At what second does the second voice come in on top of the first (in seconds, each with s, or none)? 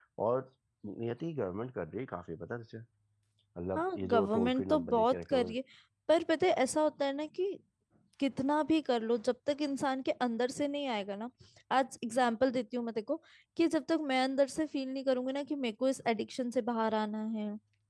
3.8 s